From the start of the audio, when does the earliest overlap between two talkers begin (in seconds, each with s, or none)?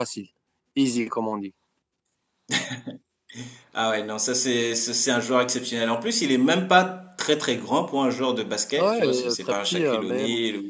8.8 s